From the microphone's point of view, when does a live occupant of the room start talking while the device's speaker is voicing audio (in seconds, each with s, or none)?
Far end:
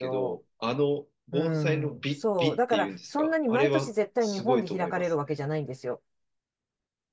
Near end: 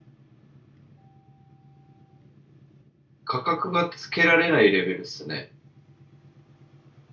3.2 s